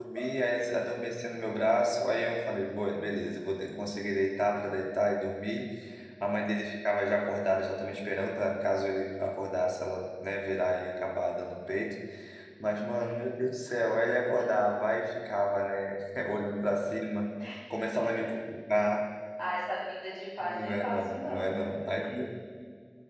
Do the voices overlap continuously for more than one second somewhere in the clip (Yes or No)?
Yes